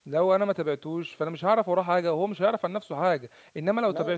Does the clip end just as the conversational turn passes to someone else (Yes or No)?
No